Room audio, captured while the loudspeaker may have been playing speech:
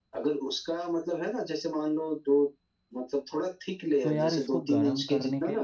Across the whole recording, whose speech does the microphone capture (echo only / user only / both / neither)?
both